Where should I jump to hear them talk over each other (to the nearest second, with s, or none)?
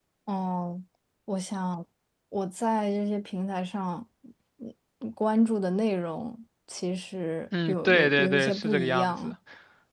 8 s